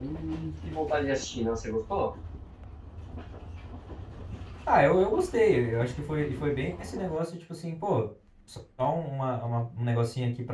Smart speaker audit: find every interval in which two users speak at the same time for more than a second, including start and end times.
none

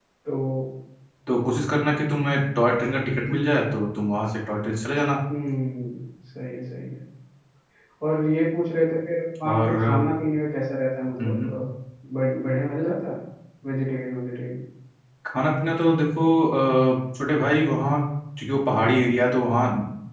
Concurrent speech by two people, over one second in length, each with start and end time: none

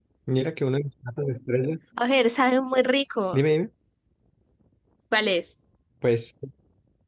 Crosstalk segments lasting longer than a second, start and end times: none

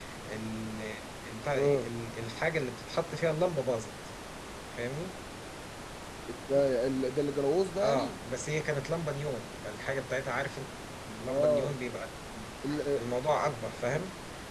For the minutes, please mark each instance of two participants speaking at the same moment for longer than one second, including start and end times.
none

